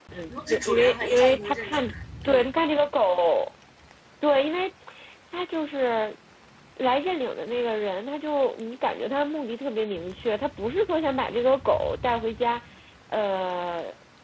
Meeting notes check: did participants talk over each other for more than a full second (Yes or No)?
Yes